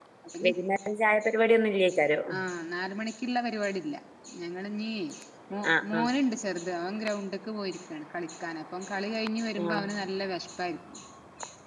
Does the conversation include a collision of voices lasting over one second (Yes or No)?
No